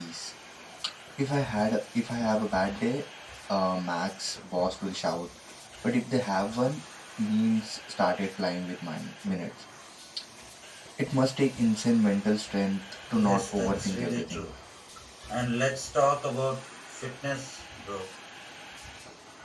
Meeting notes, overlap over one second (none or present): present